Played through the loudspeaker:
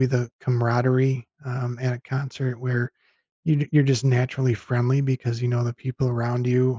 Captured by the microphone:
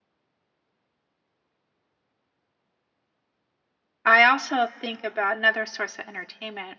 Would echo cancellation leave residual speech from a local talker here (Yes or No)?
Yes